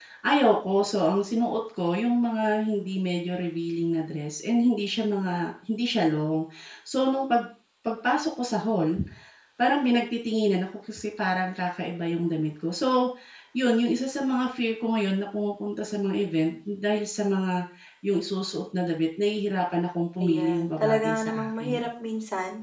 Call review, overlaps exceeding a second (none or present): present